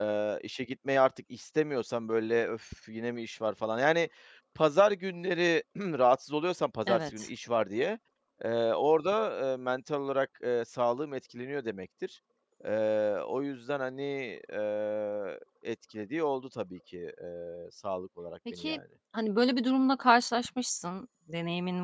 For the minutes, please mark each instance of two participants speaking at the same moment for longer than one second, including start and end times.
none

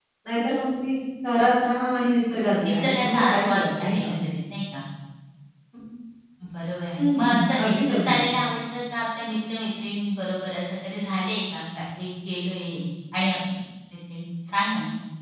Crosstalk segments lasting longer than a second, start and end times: 2.6-4.1, 7.0-8.2

